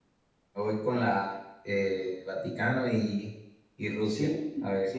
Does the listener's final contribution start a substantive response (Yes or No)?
Yes